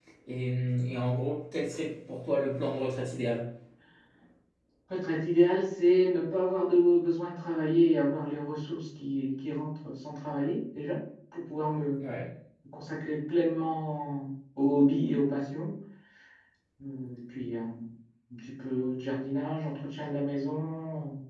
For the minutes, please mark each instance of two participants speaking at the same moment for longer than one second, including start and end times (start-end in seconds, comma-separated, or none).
none